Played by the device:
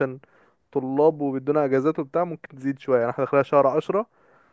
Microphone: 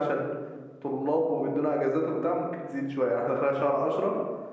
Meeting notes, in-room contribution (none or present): none